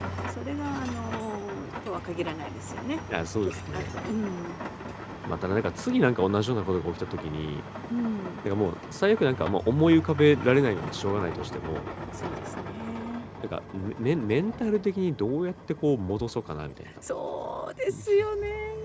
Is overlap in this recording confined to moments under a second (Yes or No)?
Yes